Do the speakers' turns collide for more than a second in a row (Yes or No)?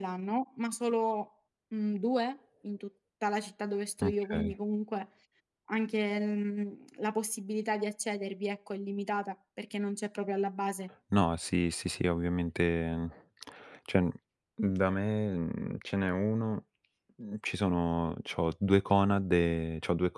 No